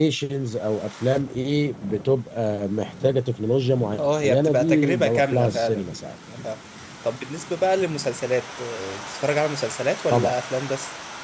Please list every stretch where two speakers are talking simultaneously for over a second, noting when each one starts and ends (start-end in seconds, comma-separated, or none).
4.0-5.9